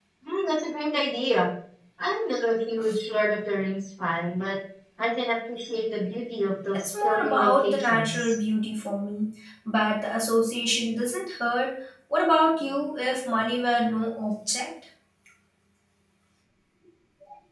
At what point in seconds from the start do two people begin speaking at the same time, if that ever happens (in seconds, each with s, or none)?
6.7 s